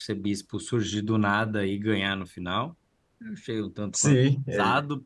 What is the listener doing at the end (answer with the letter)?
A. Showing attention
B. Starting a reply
B